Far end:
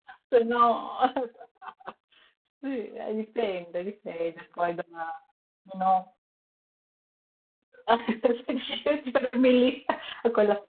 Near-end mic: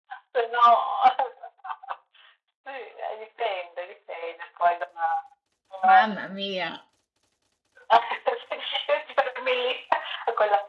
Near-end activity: present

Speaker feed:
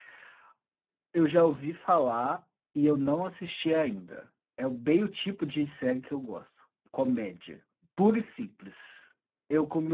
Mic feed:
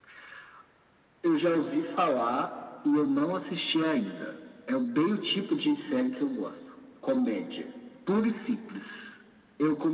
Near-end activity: none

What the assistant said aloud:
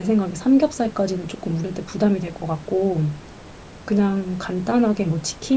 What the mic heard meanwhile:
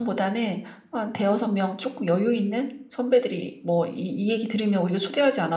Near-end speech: present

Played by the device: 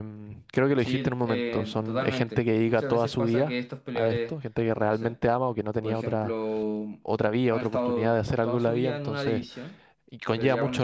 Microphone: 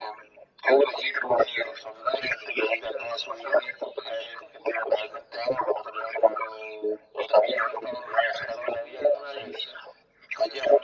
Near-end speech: none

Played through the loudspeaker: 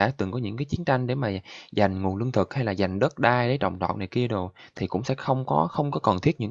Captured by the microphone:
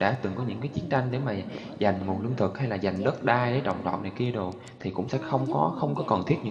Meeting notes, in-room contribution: present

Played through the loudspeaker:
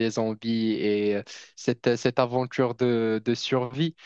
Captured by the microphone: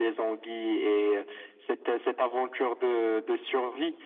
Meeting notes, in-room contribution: none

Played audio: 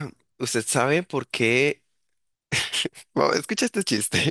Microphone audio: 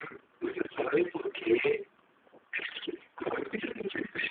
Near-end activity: none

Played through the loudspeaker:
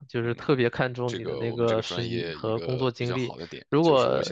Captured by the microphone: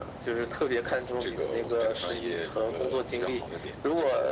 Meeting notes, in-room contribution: none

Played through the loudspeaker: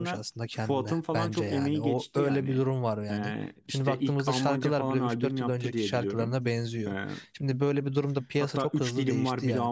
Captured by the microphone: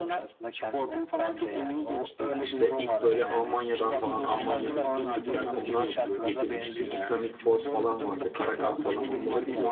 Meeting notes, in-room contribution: present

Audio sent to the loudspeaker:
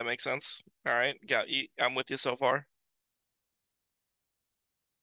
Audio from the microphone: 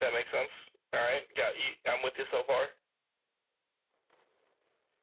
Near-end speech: none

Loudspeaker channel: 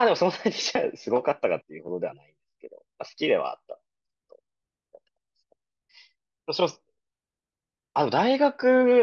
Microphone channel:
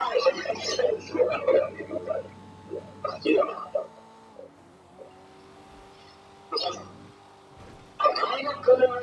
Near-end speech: none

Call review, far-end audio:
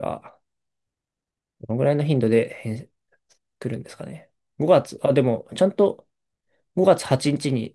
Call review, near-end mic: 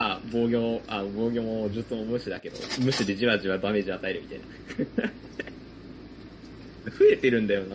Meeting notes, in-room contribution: present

